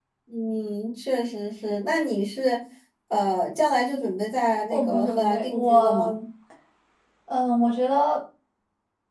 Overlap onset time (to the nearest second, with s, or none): 5 s